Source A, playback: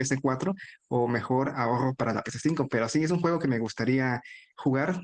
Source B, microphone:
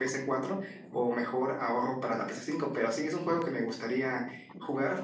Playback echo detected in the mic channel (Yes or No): Yes